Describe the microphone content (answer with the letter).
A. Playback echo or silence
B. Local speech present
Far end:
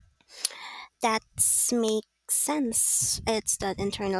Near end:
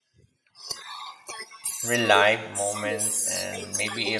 B